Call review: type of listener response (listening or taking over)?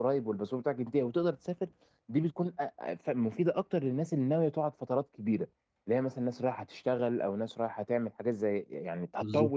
listening